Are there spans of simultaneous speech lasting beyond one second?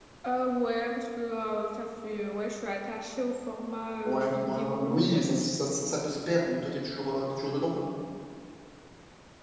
Yes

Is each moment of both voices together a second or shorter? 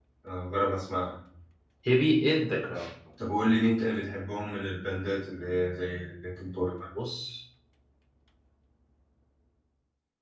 Yes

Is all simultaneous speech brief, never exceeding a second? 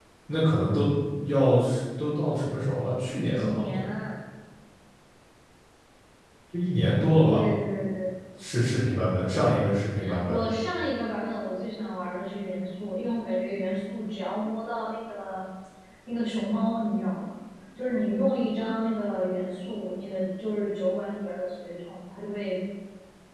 Yes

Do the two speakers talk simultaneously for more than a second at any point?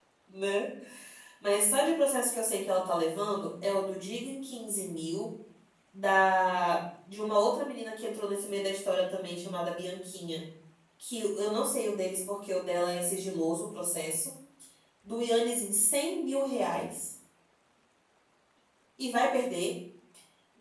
No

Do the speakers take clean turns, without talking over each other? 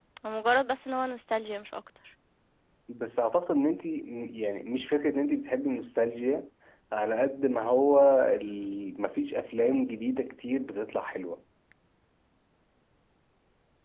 Yes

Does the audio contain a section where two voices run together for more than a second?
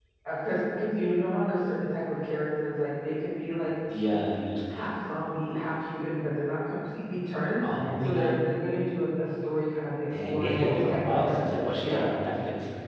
Yes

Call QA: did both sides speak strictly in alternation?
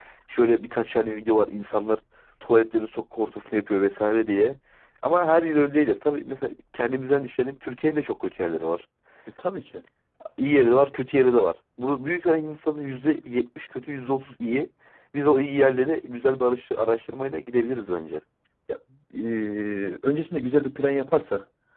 Yes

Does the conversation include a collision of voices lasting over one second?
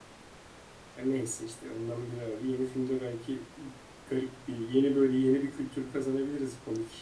No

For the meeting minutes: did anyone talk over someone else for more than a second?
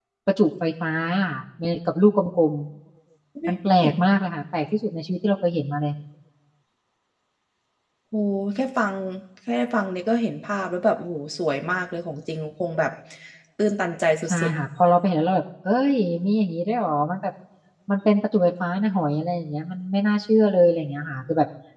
No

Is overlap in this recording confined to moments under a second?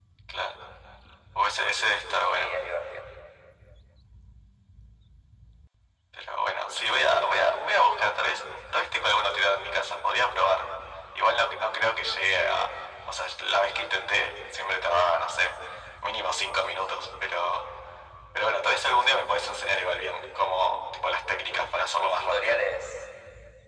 Yes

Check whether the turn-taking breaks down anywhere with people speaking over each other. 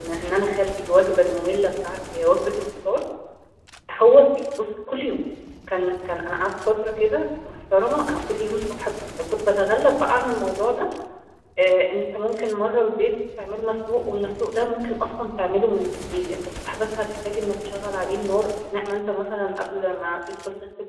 No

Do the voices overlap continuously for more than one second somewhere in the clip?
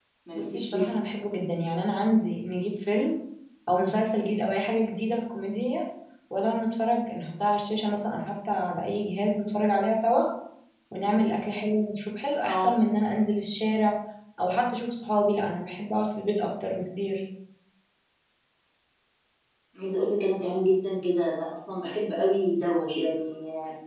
No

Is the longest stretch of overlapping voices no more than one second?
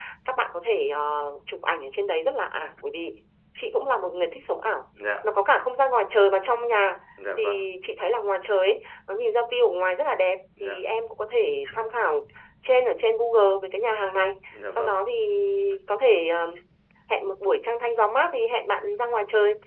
Yes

